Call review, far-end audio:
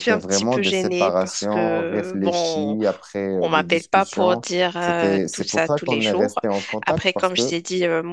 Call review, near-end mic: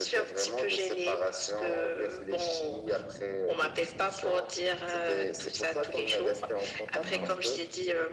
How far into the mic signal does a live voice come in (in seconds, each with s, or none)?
7.0 s